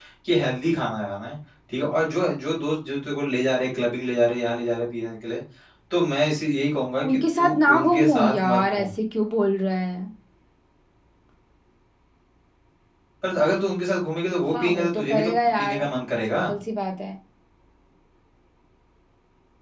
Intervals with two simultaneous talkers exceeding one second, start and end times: 7.1-8.9, 14.5-15.9

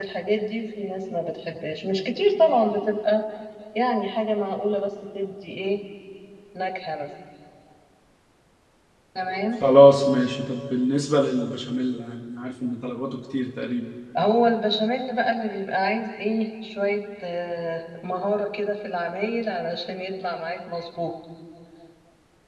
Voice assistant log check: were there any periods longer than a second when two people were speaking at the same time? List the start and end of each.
none

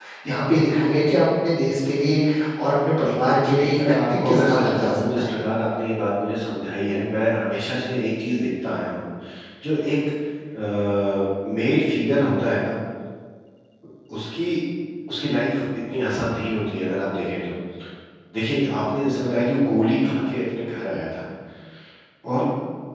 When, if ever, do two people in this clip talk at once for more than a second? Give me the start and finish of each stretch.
3.8-5.3

